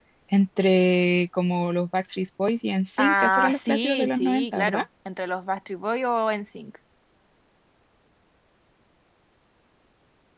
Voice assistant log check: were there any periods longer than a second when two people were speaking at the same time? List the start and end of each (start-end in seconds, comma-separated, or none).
3.0-4.8